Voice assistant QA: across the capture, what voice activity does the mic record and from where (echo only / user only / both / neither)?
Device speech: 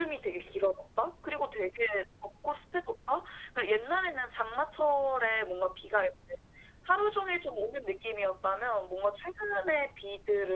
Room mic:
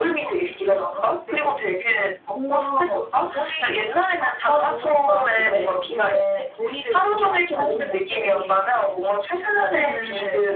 both